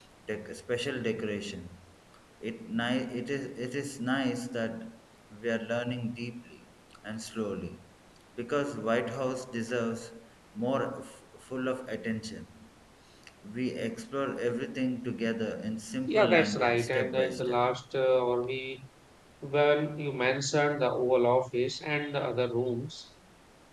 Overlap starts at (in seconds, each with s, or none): 16.1 s